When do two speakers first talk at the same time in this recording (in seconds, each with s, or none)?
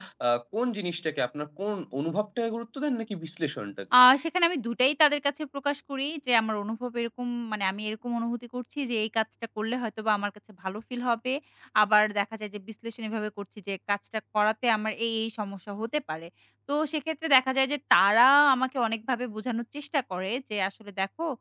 none